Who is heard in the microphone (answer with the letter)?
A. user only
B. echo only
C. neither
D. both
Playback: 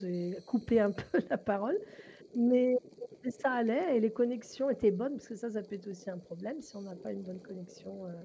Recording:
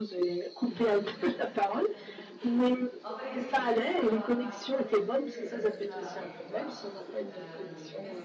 D